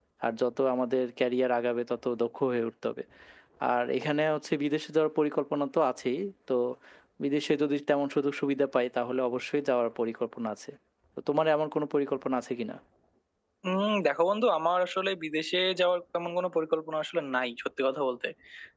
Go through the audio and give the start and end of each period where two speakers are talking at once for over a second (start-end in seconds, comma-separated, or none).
none